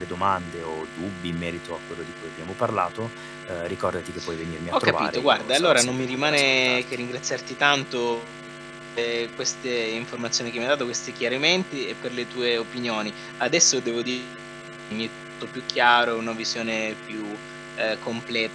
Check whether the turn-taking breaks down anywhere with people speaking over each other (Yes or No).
Yes